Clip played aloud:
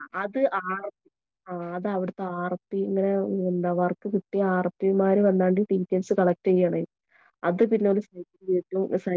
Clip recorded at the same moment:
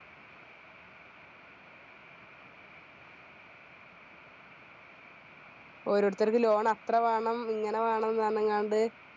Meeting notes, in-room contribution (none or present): present